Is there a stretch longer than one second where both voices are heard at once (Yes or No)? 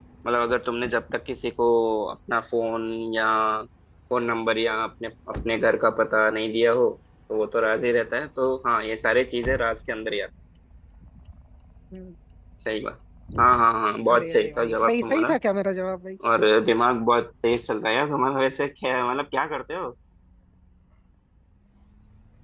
Yes